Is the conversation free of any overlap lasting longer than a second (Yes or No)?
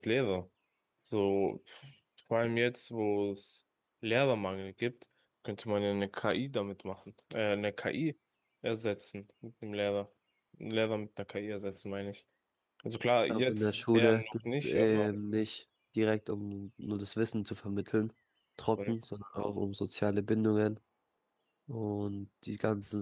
No